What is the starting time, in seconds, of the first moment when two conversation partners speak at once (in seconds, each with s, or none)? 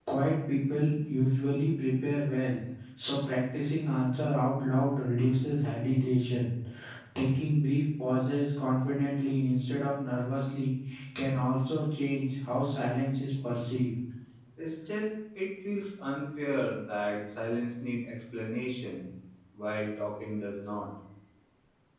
none